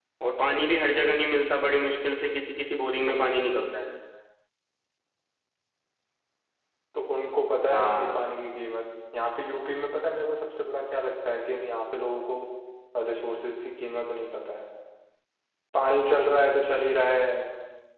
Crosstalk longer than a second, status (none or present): none